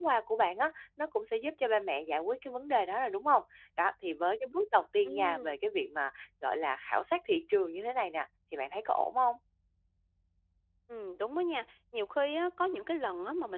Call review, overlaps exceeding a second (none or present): none